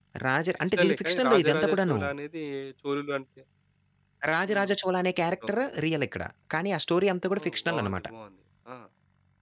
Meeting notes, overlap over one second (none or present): present